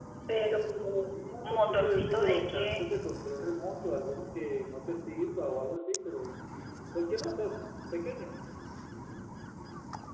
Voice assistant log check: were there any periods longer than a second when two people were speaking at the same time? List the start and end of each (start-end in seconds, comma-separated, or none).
1.4-2.8